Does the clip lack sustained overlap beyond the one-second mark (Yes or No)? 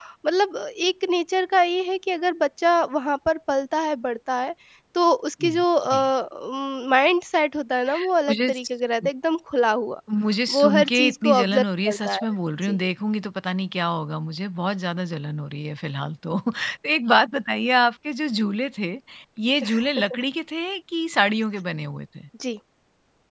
No